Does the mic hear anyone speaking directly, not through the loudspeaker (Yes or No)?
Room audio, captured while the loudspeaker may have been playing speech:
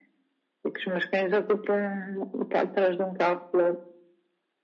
No